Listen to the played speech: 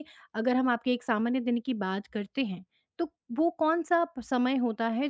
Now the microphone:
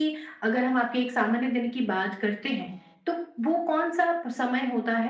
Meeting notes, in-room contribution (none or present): none